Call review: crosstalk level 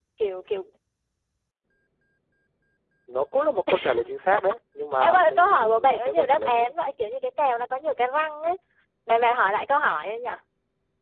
present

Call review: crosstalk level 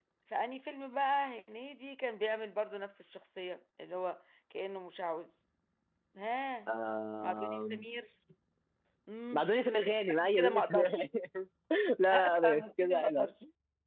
present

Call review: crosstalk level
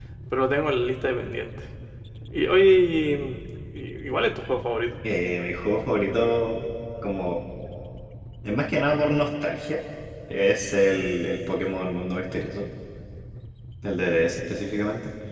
none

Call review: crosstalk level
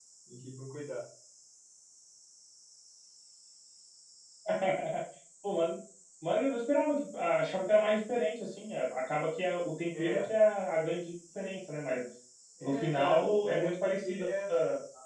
present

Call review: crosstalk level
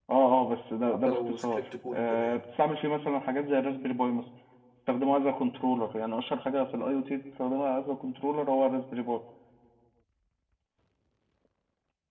present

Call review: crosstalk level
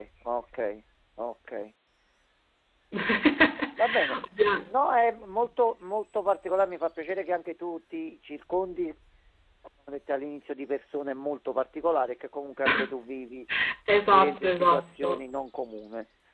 present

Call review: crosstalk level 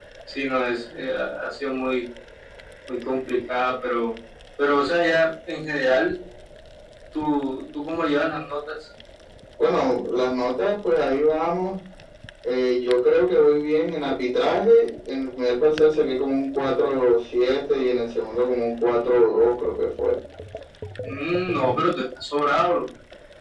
none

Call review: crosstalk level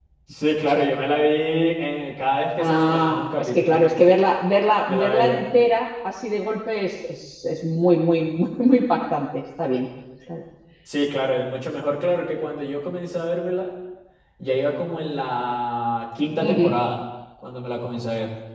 present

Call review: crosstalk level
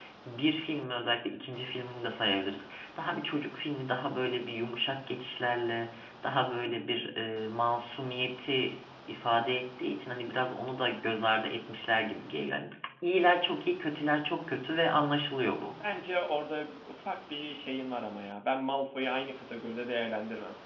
none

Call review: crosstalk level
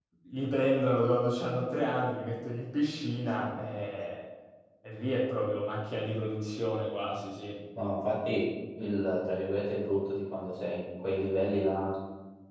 none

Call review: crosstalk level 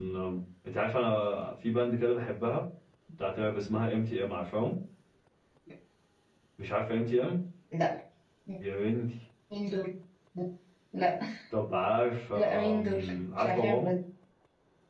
present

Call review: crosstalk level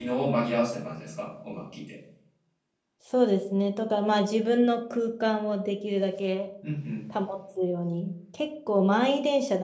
none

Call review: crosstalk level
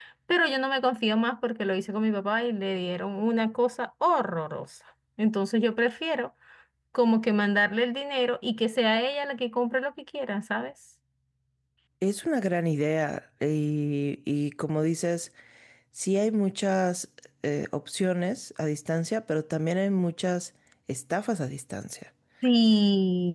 none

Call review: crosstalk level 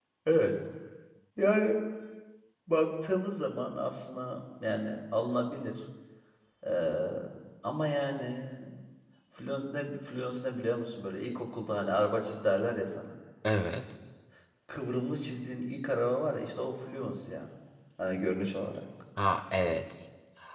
none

